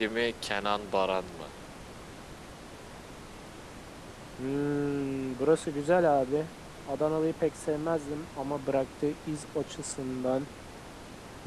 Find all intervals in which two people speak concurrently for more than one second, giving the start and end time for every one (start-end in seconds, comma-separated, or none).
none